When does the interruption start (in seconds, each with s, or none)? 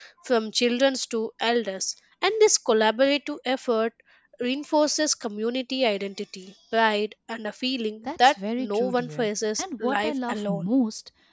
8.1 s